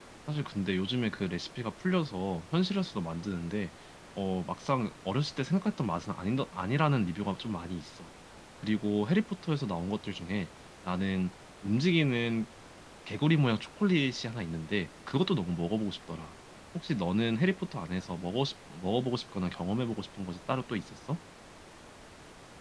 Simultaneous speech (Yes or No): No